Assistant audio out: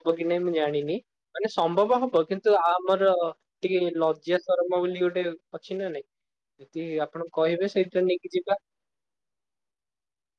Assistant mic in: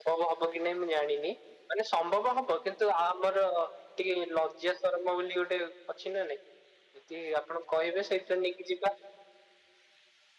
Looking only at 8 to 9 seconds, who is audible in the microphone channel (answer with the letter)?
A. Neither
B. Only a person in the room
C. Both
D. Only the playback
D